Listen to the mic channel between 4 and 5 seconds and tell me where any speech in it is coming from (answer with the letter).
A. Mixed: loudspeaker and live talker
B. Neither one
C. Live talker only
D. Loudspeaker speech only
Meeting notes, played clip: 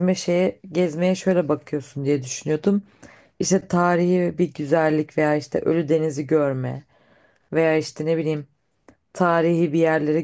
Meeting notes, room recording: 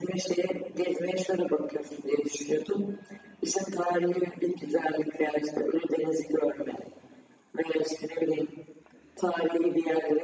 D